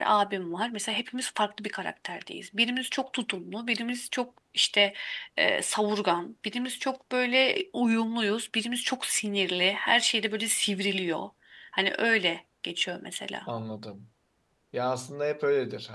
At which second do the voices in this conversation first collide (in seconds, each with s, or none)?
none